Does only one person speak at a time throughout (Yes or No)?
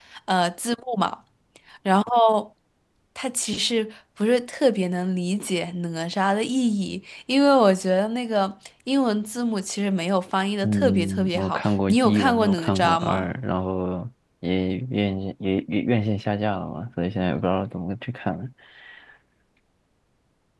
No